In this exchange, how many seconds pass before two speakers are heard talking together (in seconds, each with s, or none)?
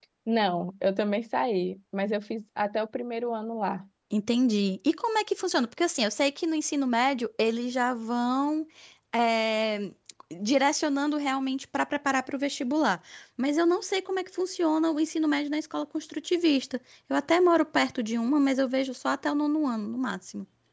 none